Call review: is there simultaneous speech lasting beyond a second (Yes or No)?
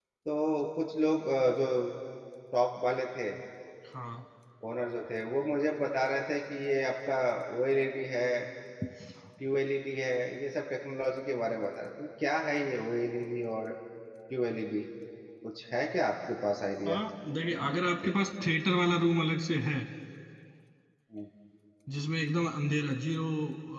No